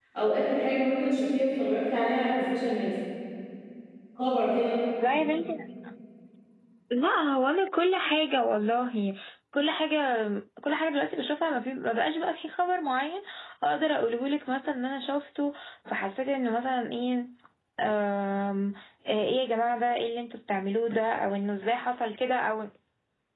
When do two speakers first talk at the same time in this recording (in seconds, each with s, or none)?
none